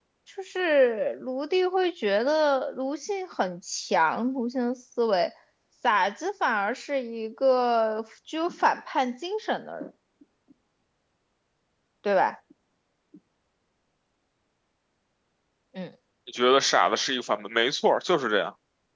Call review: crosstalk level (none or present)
none